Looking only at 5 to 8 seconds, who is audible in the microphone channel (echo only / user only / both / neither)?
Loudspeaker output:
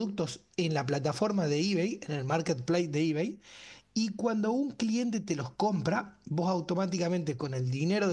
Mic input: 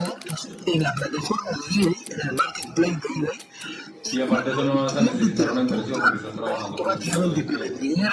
both